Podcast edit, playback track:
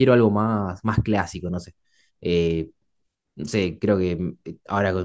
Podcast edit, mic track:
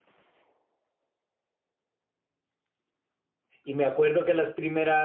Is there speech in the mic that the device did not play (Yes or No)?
Yes